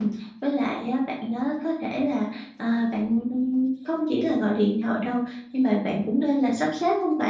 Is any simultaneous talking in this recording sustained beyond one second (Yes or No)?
No